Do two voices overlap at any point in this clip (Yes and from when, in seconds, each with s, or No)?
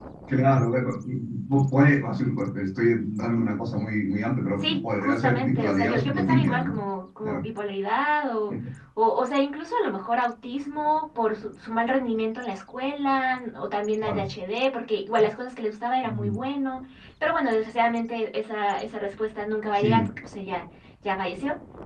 Yes, from 4.6 s